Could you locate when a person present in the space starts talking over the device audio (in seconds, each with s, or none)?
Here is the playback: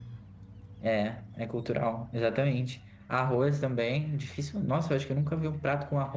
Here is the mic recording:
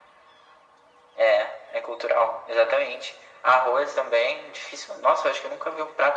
none